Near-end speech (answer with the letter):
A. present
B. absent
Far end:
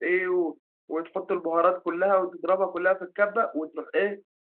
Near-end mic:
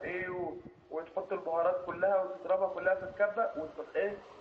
B